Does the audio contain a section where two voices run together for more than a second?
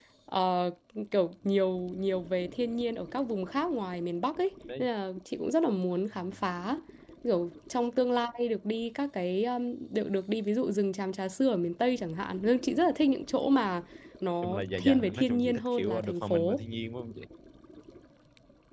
Yes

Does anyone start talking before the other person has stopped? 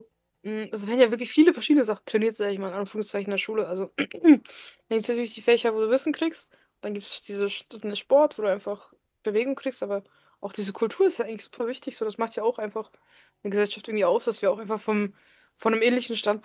No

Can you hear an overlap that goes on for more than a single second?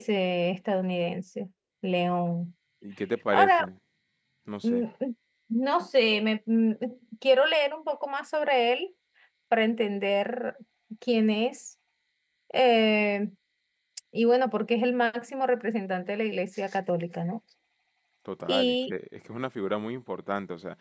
No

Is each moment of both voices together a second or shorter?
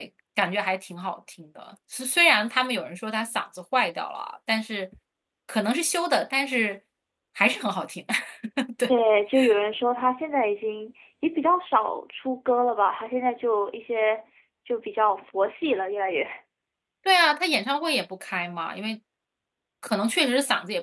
Yes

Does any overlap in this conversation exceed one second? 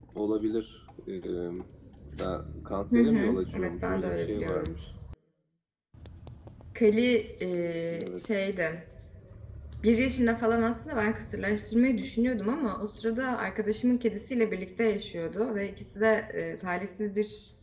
Yes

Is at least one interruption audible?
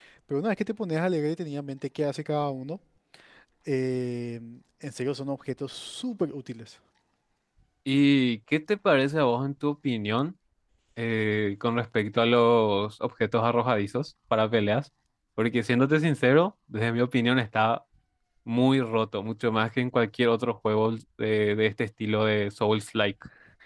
No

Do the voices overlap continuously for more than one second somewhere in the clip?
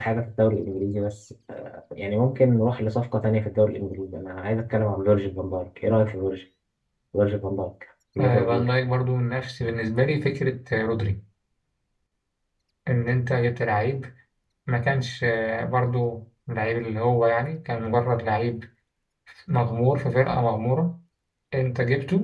No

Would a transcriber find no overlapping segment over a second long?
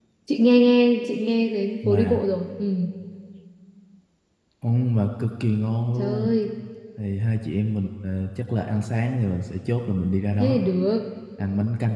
Yes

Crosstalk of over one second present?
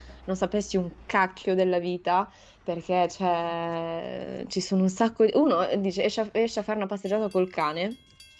No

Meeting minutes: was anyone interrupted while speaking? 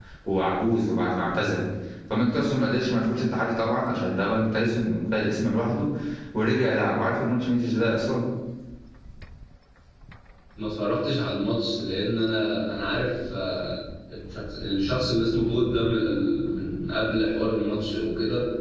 No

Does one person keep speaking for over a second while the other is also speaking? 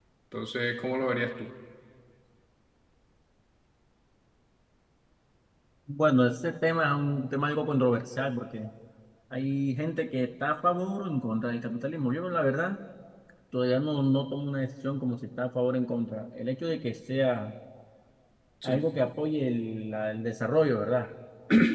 No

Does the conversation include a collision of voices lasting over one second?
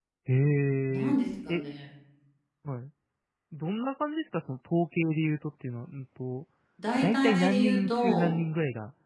Yes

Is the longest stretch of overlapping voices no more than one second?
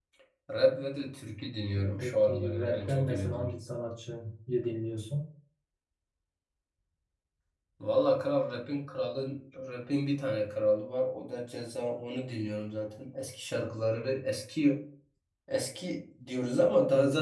No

